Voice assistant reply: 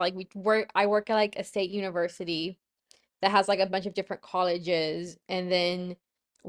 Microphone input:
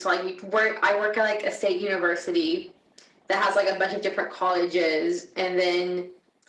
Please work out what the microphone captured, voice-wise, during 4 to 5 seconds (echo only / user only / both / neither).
echo only